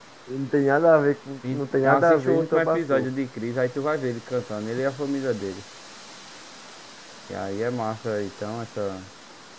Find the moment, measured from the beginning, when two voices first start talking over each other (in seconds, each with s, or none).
1.4 s